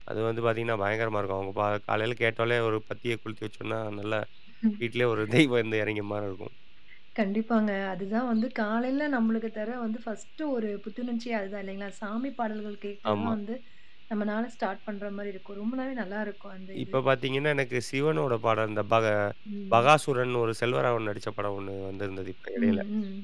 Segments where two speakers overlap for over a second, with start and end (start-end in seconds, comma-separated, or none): none